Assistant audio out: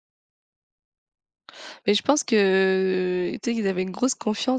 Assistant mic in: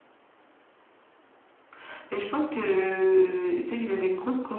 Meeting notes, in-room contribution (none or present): none